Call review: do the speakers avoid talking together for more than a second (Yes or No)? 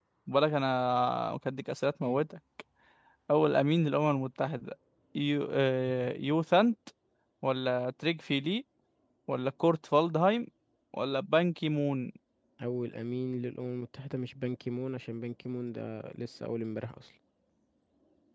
Yes